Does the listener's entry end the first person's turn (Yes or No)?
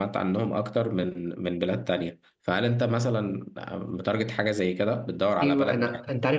Yes